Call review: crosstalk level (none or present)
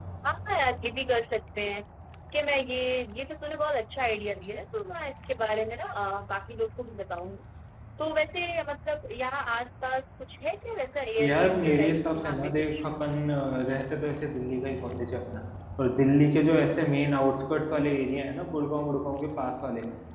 present